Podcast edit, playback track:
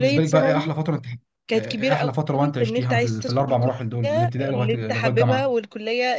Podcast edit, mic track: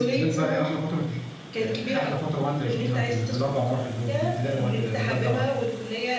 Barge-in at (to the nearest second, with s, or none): none